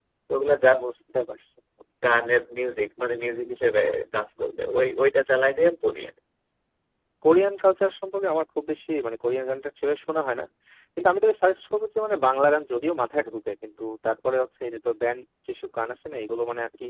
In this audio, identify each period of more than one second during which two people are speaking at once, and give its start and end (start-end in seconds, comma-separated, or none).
none